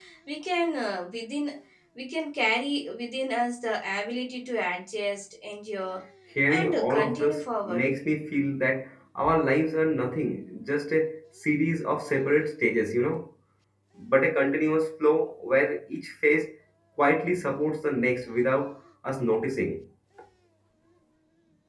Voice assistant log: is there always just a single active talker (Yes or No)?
No